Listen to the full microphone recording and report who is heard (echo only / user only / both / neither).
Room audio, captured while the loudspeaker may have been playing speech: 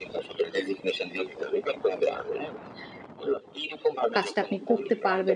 both